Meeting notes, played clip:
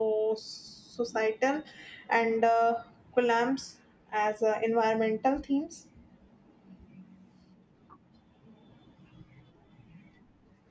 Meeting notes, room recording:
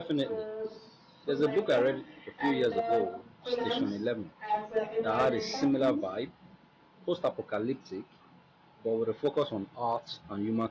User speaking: Yes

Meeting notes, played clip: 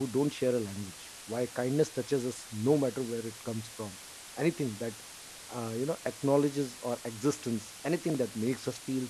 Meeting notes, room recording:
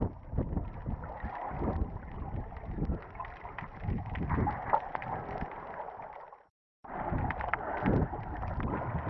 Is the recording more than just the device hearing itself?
No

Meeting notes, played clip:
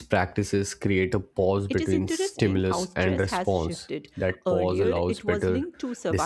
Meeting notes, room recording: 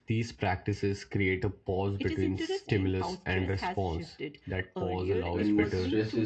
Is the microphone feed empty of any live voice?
No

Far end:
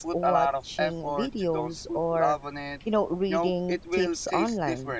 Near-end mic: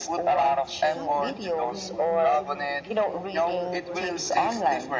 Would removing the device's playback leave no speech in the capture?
No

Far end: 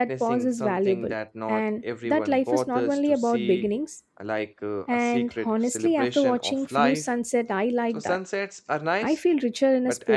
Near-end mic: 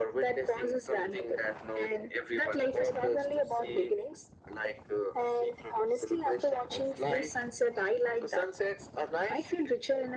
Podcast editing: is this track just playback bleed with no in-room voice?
Yes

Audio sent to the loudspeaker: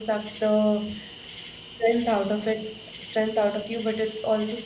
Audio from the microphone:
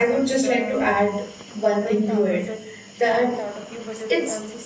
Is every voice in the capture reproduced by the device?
No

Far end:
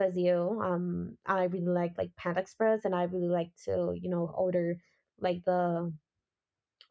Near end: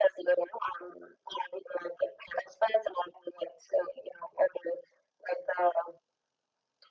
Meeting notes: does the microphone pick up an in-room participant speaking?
No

